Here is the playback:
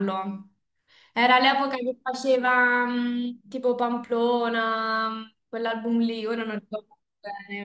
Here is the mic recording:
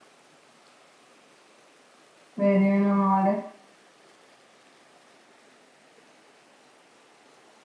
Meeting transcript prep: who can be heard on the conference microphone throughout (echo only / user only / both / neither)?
user only